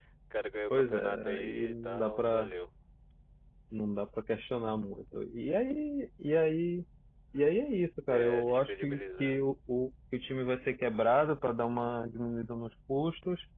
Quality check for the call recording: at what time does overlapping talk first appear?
1 s

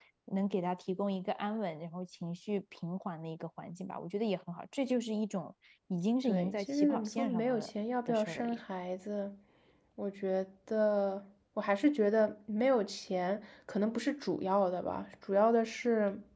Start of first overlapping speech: 6 s

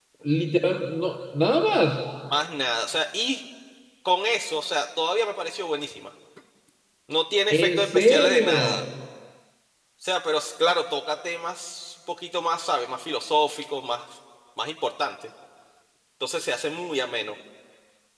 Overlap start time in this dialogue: 7 s

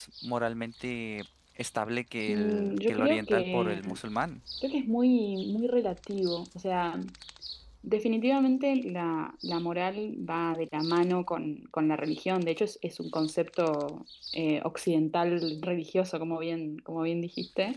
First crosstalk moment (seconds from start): 2 s

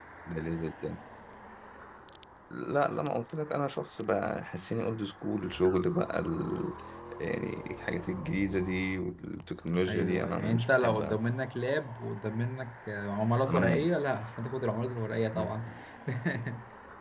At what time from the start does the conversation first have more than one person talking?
10 s

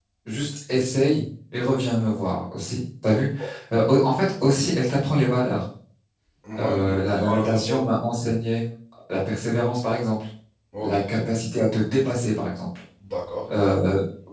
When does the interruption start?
7 s

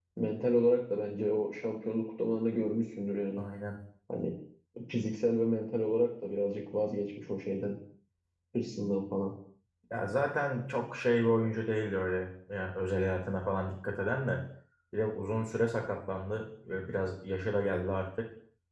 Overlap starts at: none

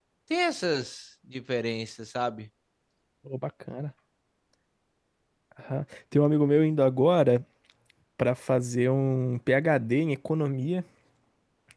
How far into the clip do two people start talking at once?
none

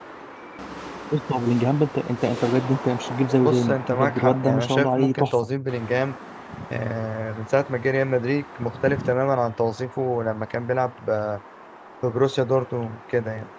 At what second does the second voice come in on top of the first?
3 s

